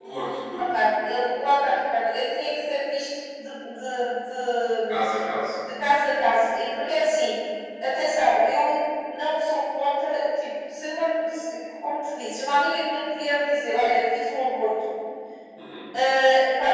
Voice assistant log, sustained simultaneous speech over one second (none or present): none